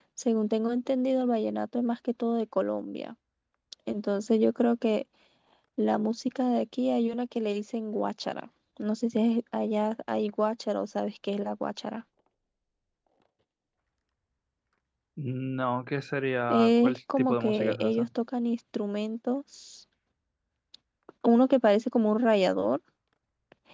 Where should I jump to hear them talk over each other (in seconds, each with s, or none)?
16.5 s